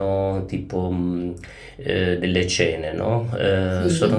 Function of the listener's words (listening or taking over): listening